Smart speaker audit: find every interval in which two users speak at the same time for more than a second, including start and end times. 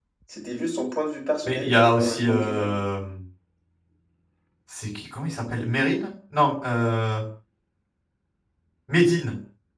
1.4-2.8

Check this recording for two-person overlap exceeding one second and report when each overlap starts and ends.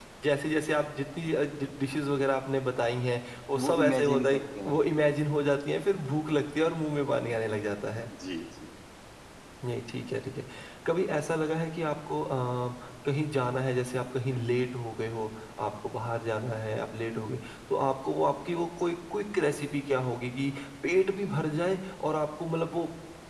3.5-4.8

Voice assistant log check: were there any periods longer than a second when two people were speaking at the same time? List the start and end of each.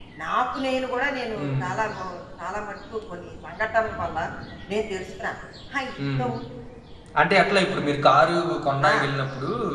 none

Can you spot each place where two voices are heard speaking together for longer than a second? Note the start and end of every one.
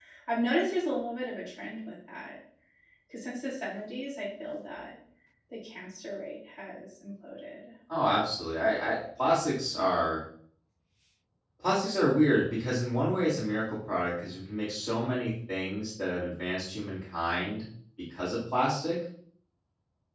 none

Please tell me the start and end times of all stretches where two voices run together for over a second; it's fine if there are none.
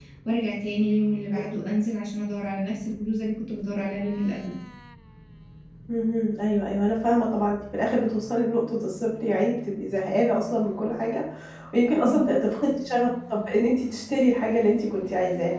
none

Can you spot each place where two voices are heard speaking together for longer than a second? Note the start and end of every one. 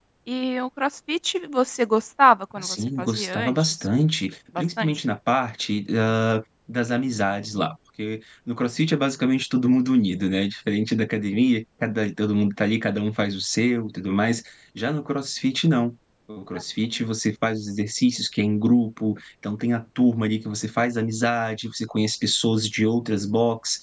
2.6-3.9

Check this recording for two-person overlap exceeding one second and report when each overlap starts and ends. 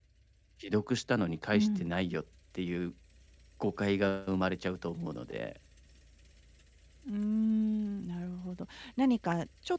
none

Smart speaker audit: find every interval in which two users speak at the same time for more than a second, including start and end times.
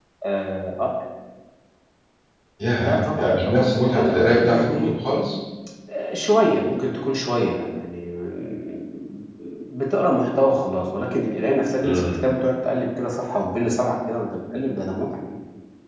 2.8-4.9

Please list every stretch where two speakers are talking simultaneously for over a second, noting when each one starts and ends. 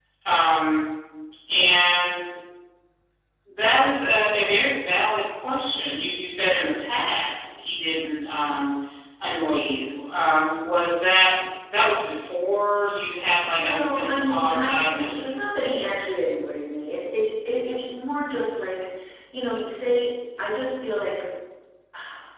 13.5-14.8

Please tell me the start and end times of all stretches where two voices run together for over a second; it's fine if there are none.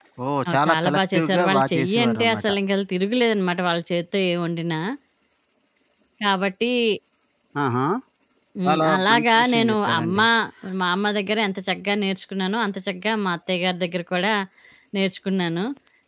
0.5-2.4, 8.7-10.2

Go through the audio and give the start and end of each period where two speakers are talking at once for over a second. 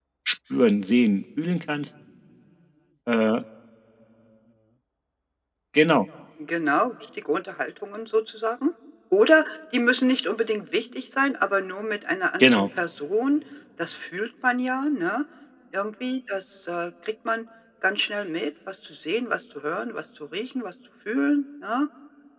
none

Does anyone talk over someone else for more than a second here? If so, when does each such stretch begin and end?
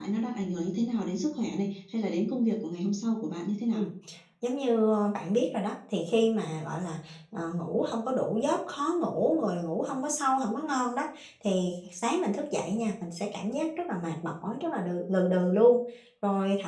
none

